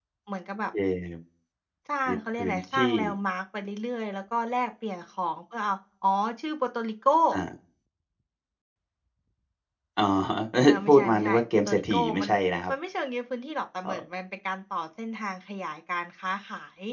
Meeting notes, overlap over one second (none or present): present